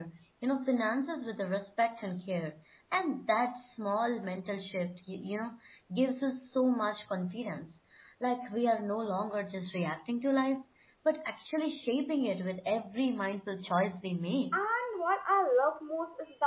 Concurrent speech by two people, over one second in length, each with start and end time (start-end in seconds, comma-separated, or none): none